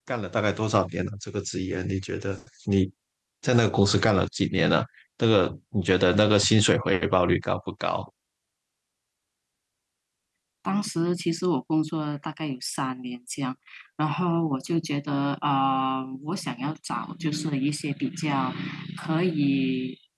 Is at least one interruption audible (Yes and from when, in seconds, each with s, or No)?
No